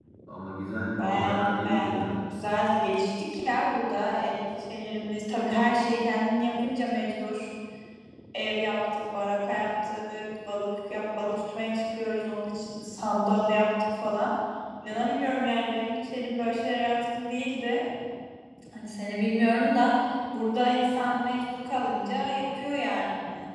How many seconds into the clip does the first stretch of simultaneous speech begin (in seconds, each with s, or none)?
1.0 s